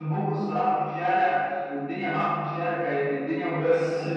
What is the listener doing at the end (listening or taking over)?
listening